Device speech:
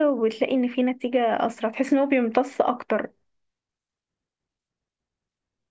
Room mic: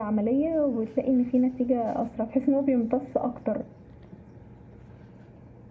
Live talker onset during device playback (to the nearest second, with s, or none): none